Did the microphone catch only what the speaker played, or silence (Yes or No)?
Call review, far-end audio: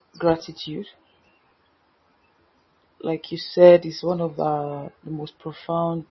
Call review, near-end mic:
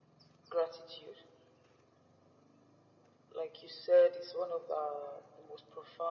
Yes